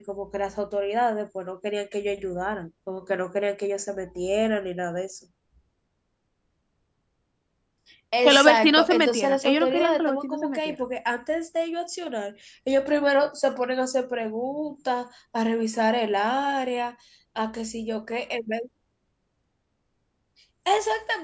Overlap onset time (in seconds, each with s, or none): 8.2 s